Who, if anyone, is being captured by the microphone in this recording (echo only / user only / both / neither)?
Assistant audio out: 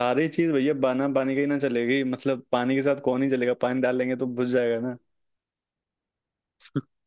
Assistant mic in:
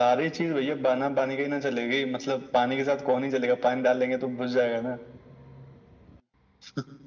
echo only